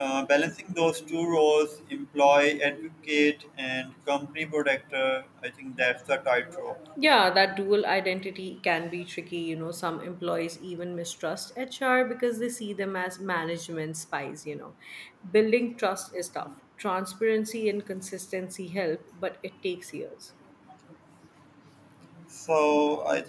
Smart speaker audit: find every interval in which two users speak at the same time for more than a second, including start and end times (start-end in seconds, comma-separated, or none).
none